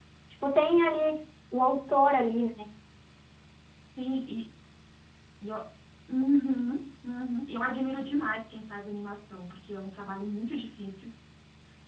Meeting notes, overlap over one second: none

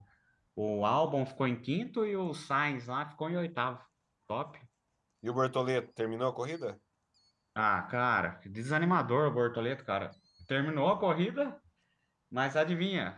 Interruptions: none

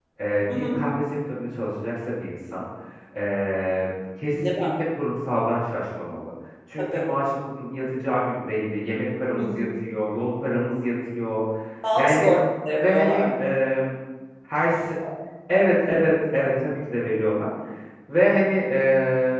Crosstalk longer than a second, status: none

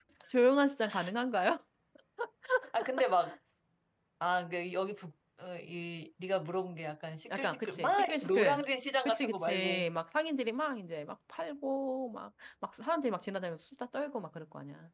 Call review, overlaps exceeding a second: present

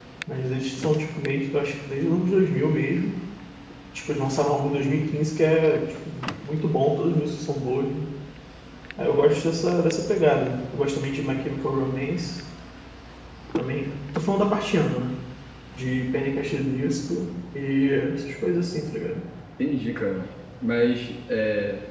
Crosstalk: none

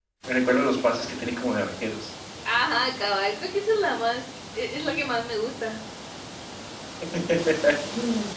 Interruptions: none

